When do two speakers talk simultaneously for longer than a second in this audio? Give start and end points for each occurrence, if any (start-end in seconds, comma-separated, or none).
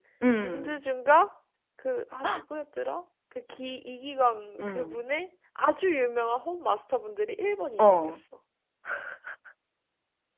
none